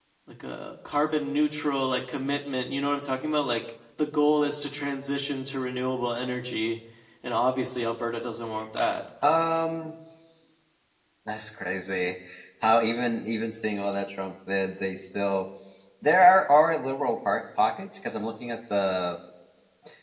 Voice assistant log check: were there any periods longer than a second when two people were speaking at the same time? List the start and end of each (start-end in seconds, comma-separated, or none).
none